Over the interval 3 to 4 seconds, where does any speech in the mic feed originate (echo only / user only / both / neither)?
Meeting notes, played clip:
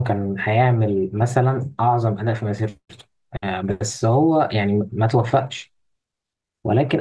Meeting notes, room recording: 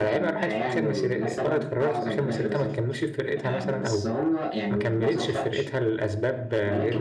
both